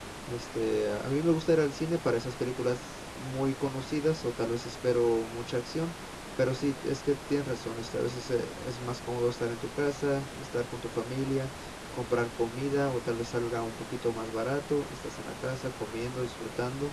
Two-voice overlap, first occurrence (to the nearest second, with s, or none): none